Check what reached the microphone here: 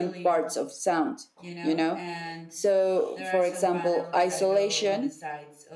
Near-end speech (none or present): present